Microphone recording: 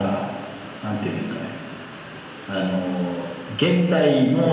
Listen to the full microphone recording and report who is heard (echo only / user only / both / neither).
echo only